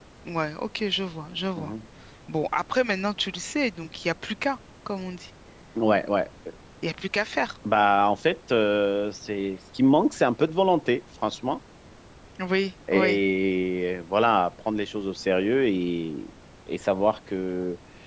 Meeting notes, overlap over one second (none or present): none